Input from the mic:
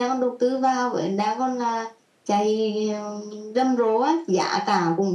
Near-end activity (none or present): none